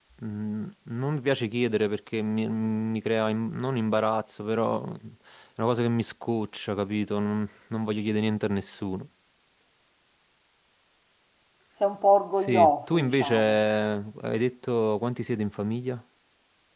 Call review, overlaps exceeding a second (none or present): present